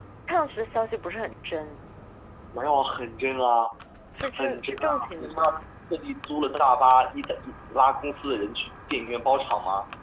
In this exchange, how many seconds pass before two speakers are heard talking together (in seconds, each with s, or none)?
4.4 s